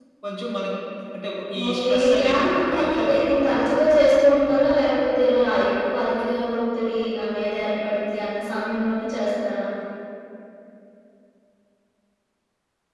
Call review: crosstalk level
present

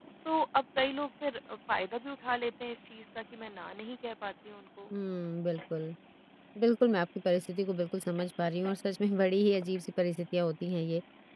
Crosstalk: none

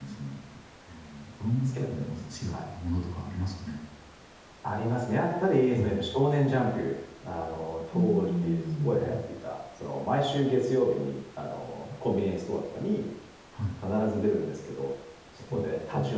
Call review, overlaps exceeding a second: present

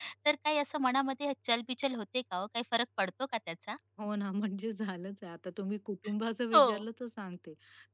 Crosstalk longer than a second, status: none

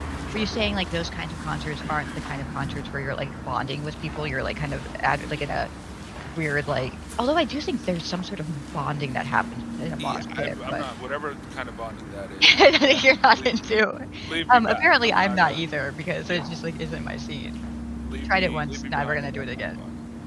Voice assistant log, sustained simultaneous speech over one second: present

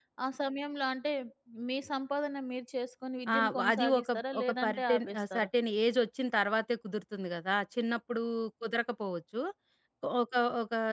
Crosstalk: present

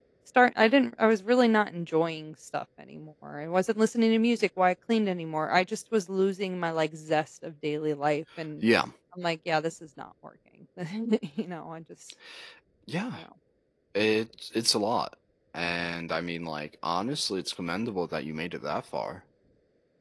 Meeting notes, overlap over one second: none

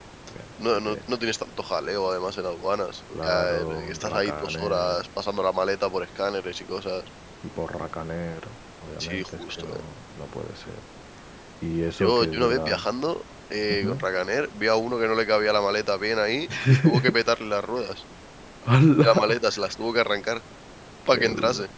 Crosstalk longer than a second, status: present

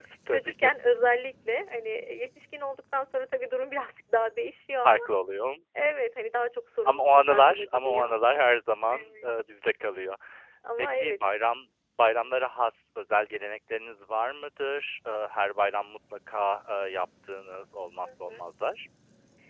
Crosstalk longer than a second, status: present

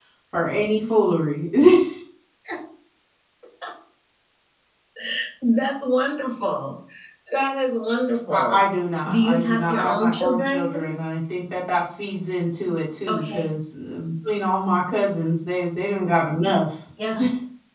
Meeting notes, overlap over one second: present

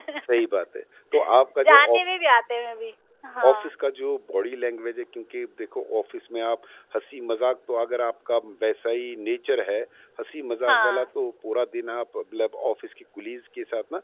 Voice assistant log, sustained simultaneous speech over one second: none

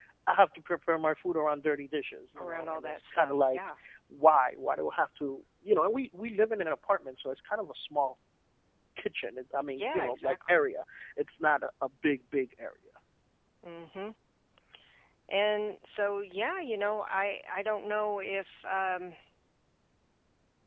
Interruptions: present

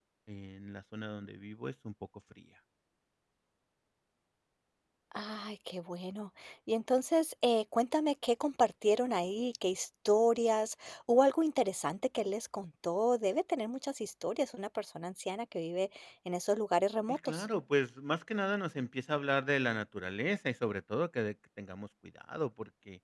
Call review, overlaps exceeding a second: none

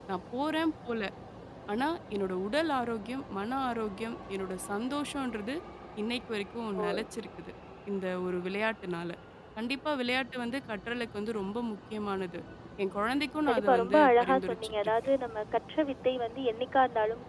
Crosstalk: present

